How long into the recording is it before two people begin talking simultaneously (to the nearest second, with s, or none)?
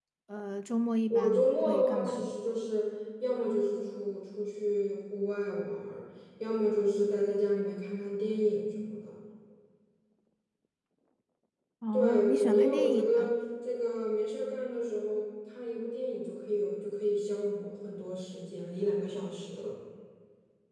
1 s